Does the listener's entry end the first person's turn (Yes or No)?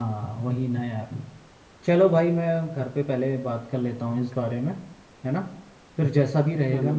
No